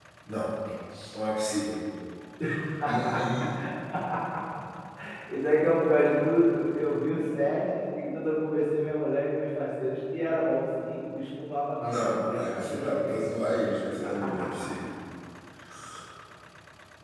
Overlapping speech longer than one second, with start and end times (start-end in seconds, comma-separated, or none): 11.8-13.2